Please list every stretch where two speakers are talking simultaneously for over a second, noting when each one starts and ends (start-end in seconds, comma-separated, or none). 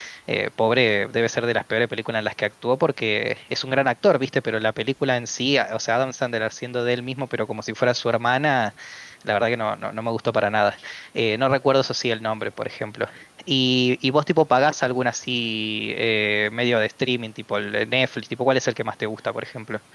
none